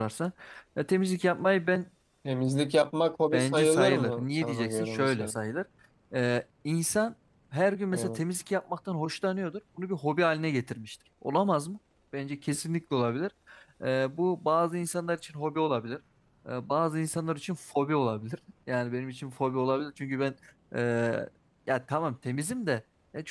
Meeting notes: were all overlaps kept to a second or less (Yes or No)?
No